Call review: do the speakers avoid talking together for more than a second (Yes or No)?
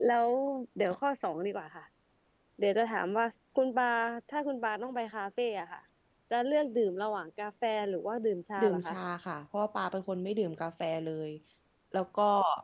Yes